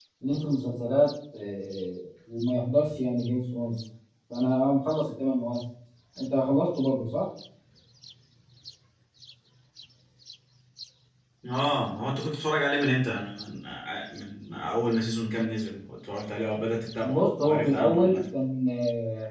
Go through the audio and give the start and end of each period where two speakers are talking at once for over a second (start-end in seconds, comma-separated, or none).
17.0-18.2